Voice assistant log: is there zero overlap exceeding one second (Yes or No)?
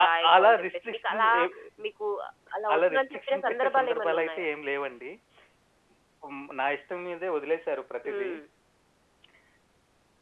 No